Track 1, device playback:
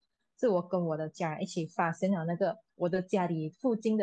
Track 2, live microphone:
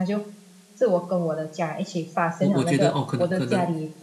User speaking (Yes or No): Yes